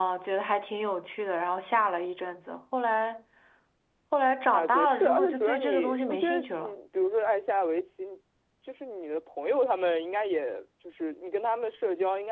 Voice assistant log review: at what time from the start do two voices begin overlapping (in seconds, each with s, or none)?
4.5 s